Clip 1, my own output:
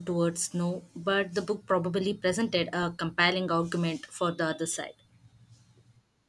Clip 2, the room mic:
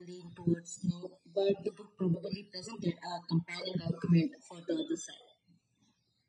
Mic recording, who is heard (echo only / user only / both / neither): echo only